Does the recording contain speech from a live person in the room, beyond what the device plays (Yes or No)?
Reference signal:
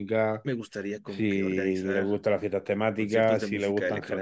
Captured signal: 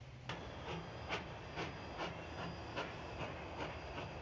No